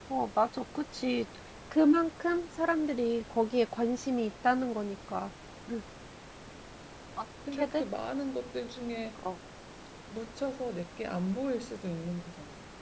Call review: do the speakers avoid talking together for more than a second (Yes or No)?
Yes